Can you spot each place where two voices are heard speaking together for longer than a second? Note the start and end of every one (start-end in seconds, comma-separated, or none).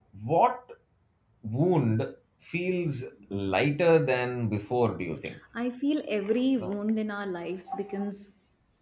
none